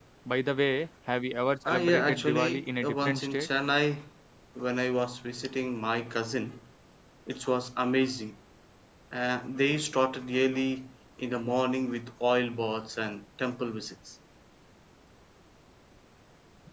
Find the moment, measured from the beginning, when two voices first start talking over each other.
2 s

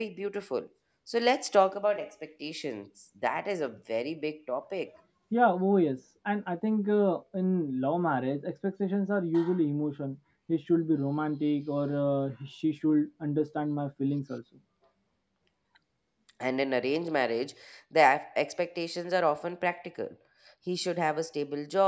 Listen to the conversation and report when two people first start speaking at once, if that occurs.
none

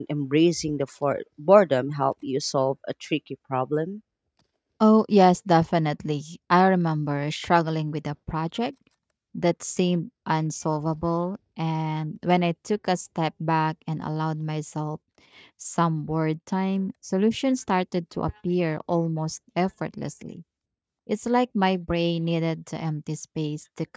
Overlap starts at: none

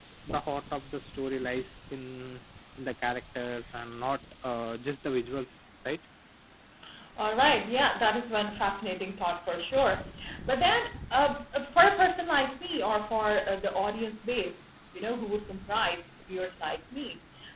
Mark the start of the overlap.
none

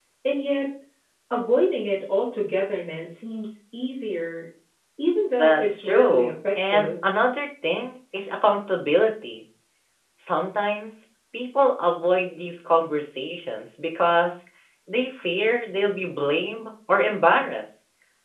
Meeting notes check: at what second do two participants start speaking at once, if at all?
5 s

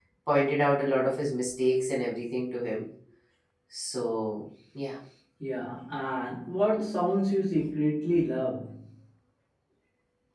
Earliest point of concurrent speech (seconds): none

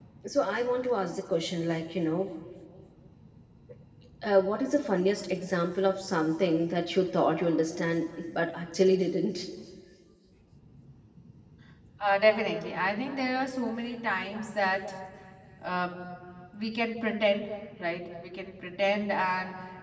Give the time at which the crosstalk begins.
none

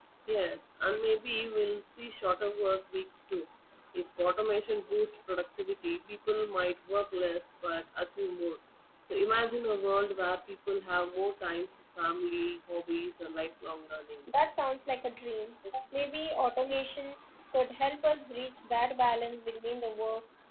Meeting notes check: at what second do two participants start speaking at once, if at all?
none

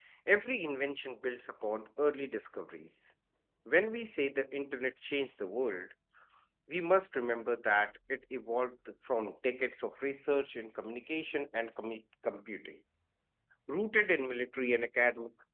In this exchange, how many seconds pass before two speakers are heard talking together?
none

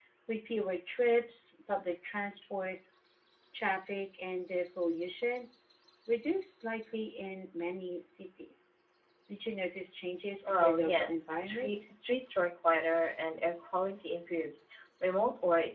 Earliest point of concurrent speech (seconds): 10 s

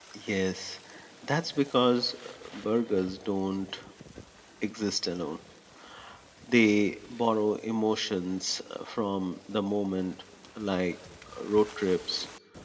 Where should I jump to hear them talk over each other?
none

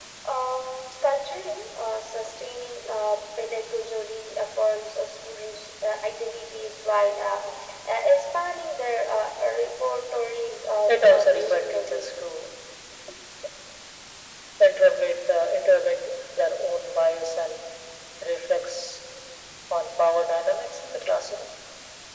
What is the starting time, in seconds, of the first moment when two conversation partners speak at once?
11 s

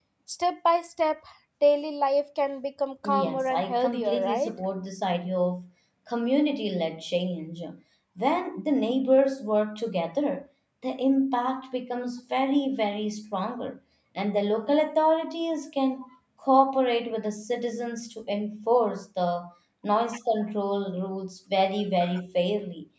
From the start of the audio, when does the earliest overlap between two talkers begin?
3 s

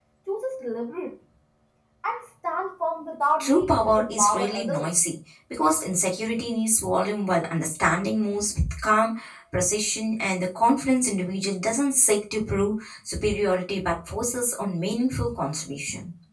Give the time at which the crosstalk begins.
3 s

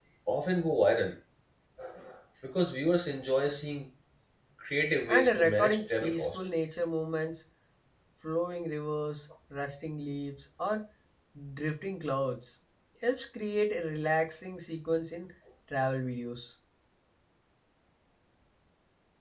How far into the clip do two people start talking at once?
5 s

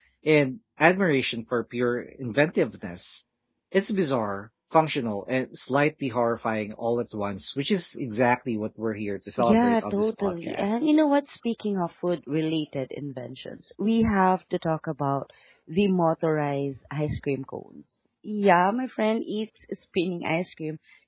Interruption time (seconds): 9 s

